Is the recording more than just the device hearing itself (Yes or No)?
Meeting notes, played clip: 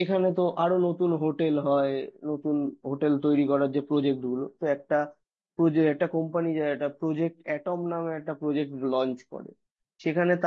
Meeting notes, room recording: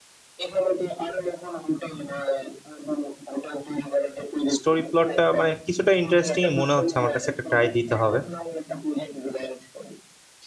Yes